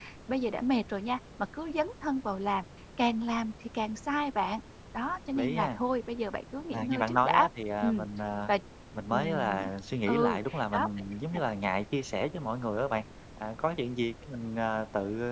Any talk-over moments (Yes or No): Yes